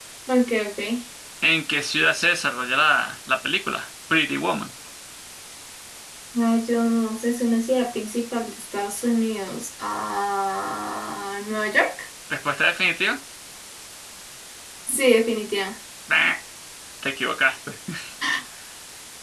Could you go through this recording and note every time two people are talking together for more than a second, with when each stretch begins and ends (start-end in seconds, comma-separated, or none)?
none